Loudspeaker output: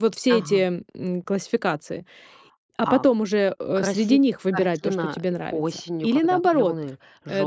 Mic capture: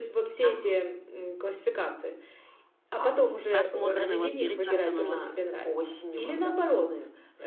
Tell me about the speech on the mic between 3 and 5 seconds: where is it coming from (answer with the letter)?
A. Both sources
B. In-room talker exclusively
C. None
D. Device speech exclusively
A